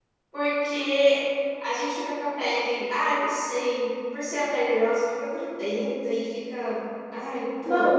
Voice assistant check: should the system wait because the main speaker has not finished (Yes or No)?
No